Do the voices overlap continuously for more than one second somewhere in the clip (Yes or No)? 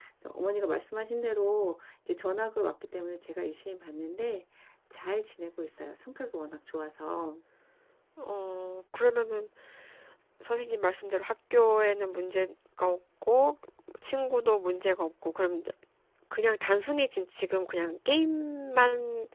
No